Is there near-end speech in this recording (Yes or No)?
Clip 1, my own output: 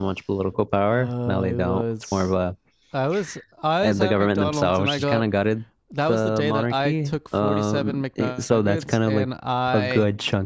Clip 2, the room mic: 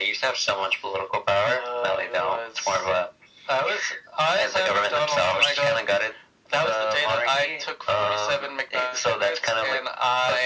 No